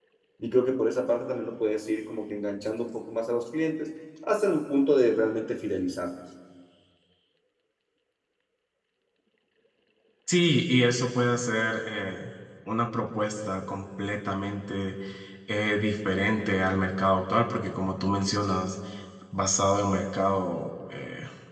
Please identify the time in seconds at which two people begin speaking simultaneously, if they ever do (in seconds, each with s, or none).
none